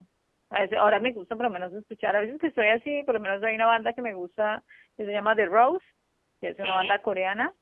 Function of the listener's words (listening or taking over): listening